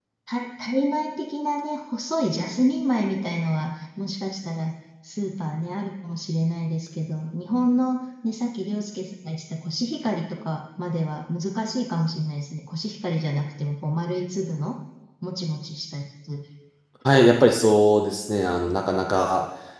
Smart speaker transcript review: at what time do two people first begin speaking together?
none

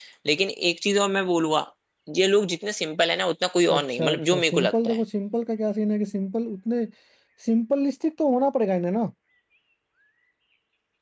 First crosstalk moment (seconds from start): 4 s

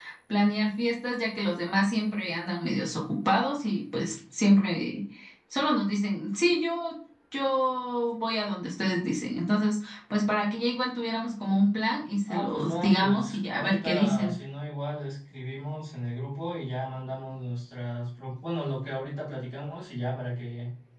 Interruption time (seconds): 12 s

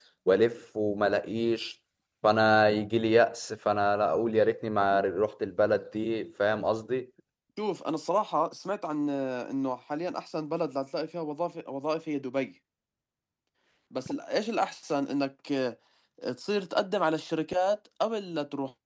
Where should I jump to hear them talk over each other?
none

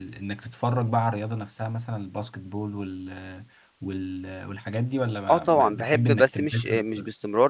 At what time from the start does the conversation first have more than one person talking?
5 s

